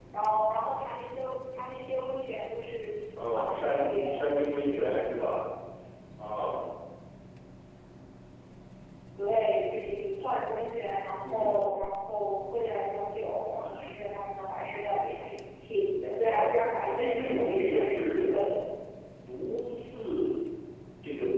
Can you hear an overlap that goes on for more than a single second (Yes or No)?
Yes